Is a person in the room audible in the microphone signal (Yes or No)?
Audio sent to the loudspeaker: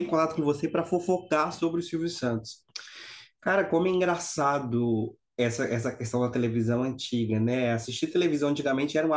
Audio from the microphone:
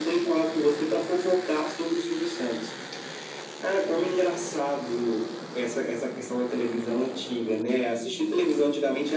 No